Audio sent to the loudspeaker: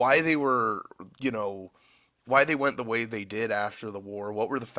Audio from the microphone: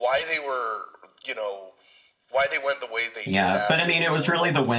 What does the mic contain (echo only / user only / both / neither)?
both